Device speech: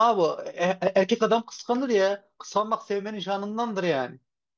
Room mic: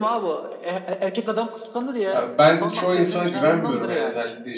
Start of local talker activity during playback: 2 s

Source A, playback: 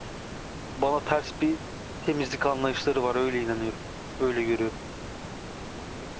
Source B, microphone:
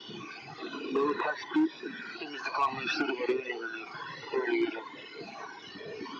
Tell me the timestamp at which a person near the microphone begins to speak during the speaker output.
none

